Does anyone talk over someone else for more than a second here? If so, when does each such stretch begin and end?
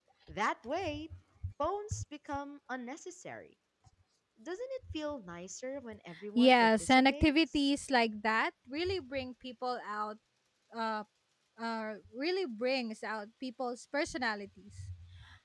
6.3-7.7

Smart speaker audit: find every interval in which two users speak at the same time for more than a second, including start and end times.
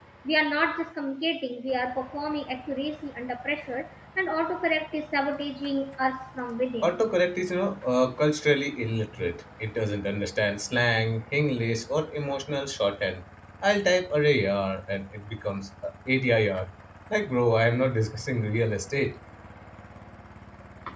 none

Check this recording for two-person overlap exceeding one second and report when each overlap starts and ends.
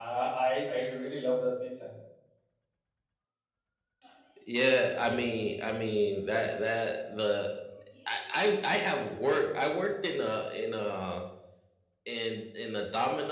none

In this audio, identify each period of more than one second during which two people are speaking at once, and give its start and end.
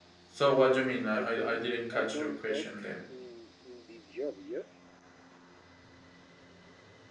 1.2-2.9

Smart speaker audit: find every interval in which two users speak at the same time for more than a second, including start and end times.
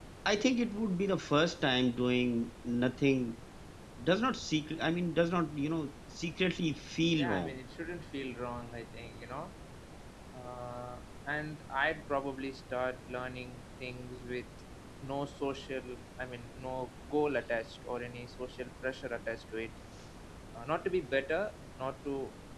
none

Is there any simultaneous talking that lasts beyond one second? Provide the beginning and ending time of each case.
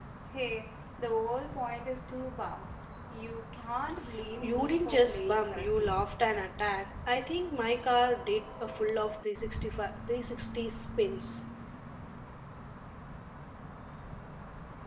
4.4-5.9

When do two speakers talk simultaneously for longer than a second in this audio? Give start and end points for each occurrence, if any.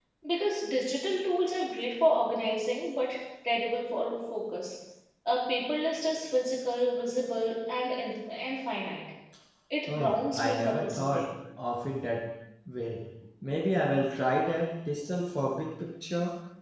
9.9-11.3

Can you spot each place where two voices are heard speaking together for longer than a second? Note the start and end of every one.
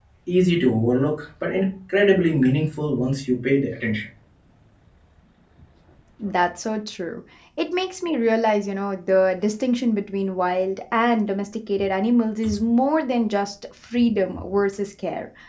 none

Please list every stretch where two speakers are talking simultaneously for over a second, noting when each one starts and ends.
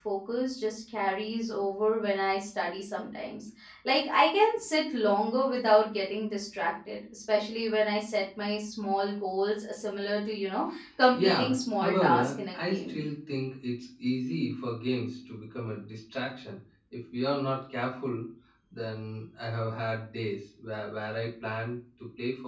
11.1-13.0

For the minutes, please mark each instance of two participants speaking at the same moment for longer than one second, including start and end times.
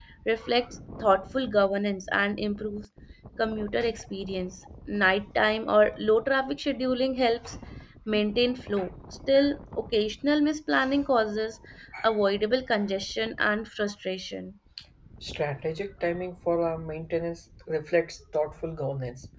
none

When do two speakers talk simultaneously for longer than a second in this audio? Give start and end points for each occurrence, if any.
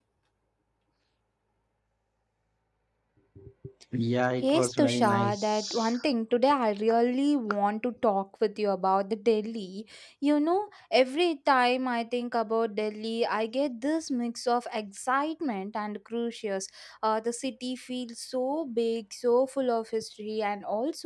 4.4-5.9

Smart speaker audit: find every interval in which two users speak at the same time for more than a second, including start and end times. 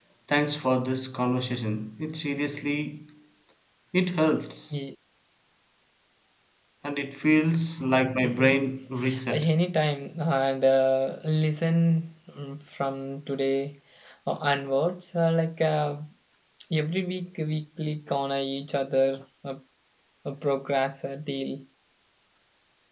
none

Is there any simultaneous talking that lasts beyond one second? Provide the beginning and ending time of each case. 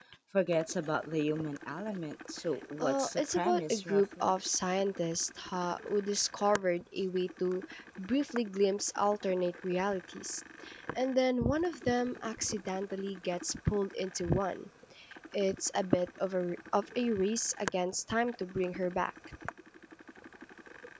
2.8-4.3

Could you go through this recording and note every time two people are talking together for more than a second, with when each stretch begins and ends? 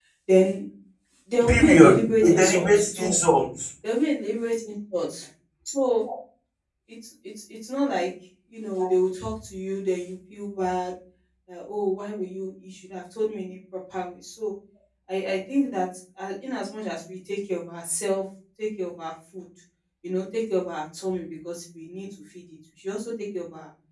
1.5-3.1

